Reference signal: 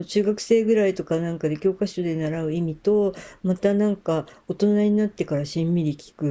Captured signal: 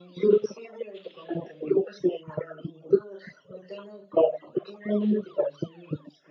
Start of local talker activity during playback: none

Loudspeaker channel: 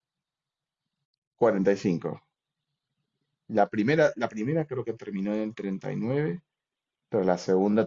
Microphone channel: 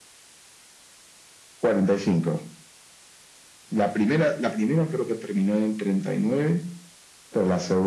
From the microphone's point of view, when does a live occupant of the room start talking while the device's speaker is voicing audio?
none

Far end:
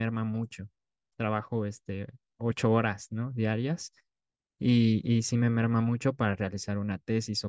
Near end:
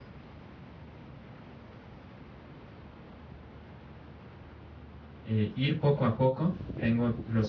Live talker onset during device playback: 5 s

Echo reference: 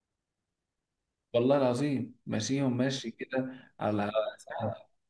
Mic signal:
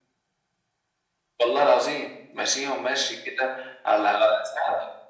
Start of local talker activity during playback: none

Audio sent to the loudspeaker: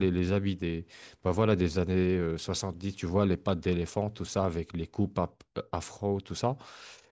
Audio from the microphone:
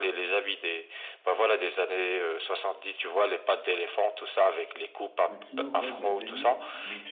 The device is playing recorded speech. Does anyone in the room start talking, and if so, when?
5 s

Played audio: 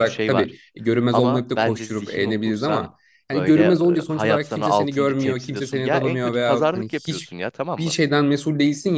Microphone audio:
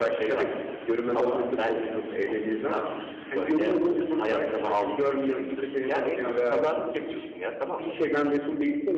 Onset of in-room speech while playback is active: none

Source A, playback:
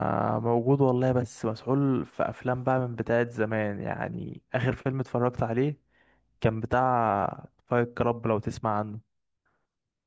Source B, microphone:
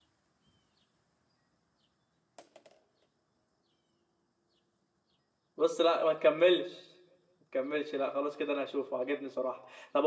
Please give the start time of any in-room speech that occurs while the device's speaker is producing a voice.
6 s

